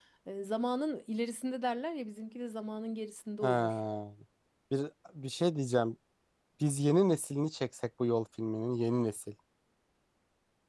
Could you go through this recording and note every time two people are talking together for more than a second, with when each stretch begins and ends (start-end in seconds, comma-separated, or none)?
none